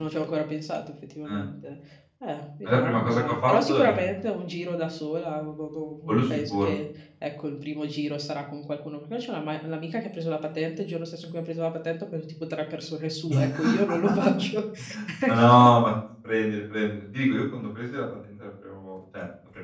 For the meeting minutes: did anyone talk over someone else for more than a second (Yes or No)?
Yes